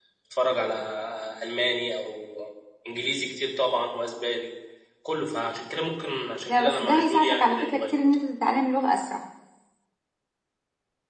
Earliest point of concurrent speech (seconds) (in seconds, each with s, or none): 6.5 s